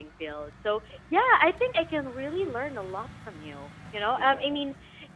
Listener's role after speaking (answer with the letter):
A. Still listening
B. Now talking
A